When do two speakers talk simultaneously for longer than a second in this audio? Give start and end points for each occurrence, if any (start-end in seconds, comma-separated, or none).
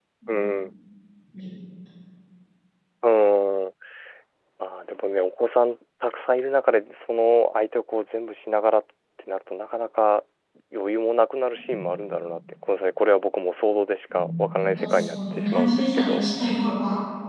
14.1-16.2